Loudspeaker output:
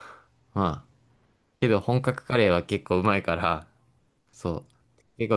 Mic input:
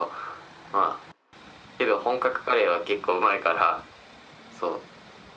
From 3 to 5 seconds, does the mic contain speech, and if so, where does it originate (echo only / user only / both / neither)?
echo only